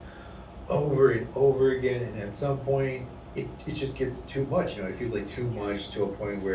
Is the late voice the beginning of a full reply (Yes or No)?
No